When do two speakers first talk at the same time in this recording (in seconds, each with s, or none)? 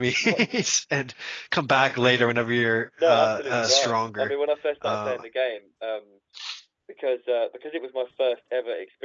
3.0 s